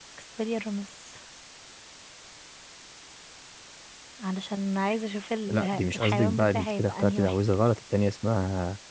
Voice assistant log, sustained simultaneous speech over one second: present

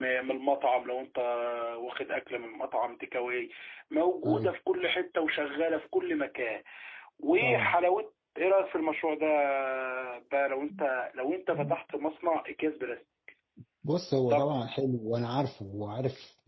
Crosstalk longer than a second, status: none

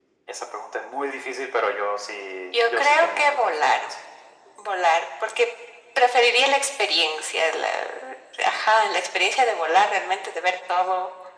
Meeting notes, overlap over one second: present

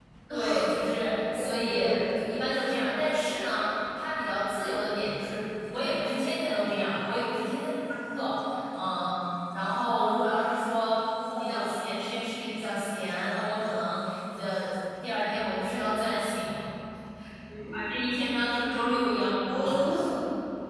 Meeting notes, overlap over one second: none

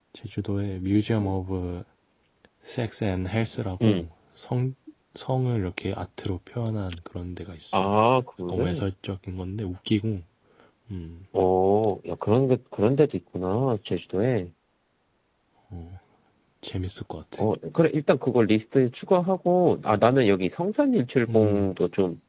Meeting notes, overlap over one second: none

